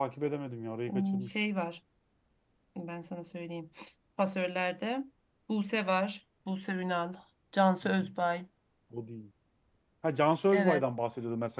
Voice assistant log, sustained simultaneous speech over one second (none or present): none